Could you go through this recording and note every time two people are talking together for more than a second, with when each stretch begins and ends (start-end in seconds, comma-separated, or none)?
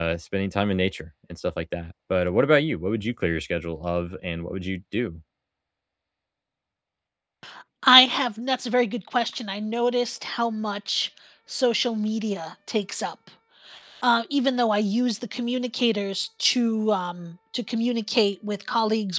none